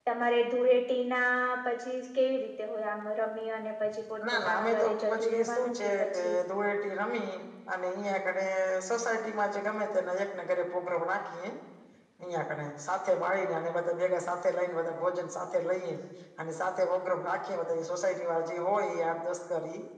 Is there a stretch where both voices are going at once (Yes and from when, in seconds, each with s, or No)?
Yes, from 4.2 s